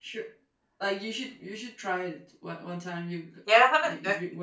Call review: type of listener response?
taking over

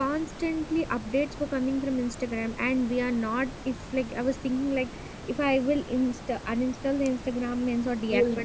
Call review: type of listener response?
listening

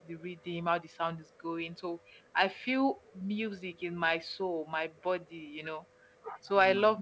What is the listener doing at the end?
listening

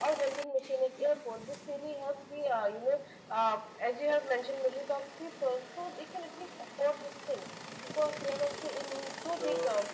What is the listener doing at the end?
taking over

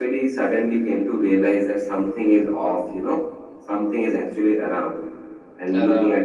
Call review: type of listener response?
listening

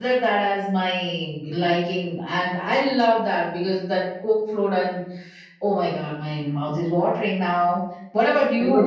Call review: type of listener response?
taking over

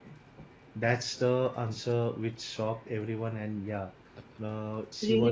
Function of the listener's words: listening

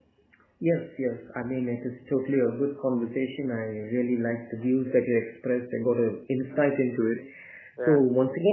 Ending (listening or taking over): listening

